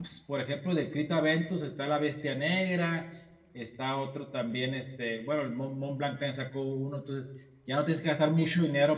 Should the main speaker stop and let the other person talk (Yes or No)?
No